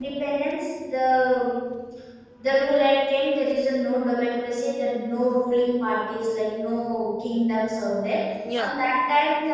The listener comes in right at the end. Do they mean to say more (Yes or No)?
No